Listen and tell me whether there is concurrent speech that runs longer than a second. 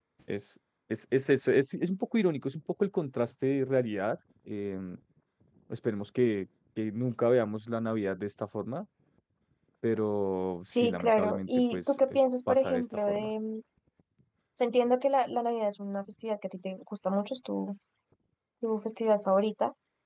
Yes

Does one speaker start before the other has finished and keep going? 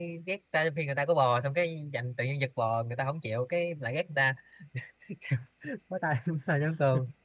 No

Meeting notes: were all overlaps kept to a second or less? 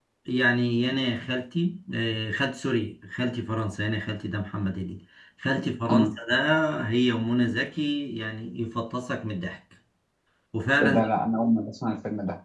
Yes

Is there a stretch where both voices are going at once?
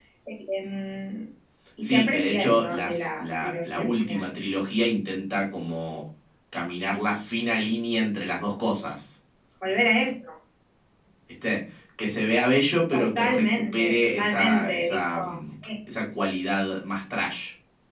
Yes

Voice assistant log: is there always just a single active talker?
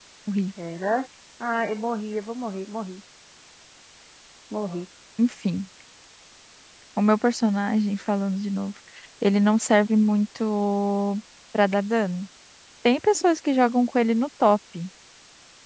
Yes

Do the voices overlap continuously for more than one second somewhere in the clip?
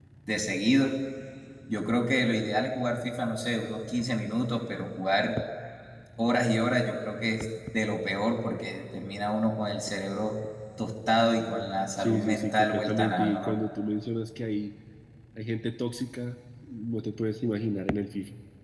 Yes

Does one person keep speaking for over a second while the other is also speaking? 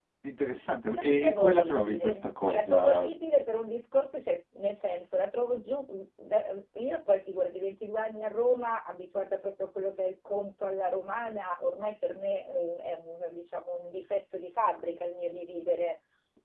Yes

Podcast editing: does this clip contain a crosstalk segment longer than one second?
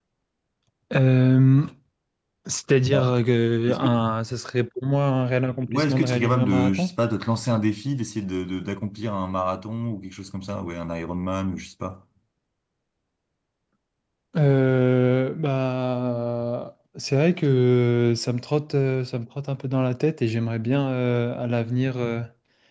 Yes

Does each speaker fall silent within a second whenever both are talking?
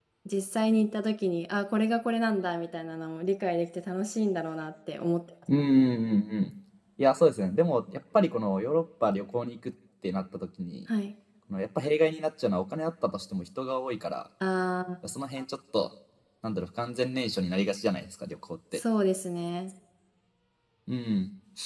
Yes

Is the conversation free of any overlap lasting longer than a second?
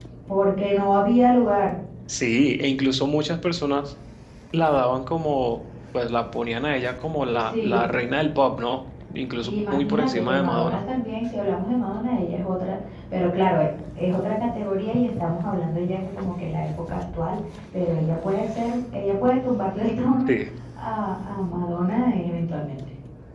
No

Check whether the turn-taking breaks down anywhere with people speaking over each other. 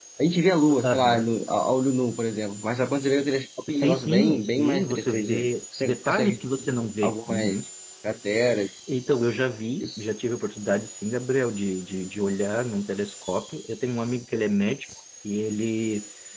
Yes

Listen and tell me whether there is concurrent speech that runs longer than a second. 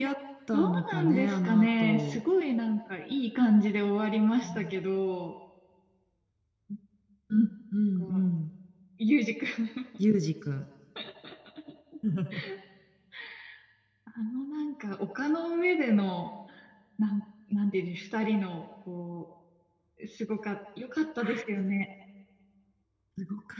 Yes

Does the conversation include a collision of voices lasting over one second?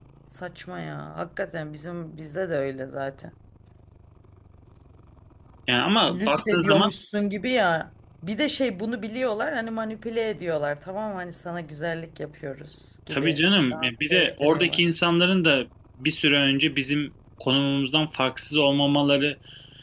Yes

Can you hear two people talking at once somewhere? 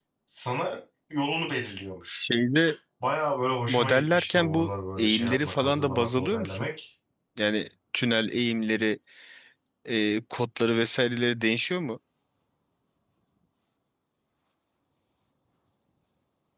Yes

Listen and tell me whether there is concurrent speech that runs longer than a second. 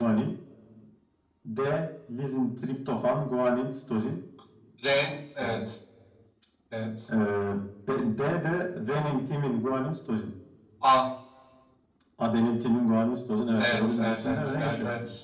Yes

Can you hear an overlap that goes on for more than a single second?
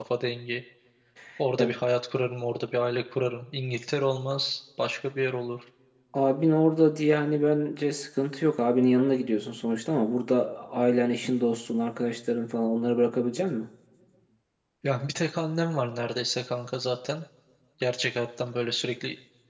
No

